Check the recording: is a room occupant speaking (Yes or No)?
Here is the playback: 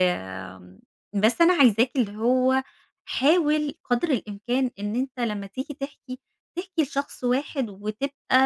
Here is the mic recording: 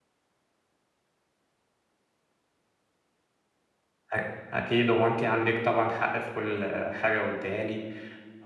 Yes